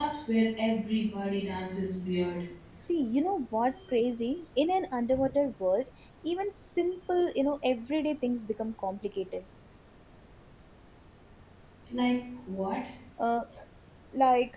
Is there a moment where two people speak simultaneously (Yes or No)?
No